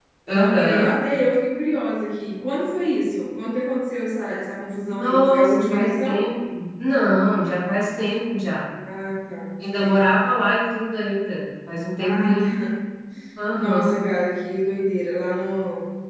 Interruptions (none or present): present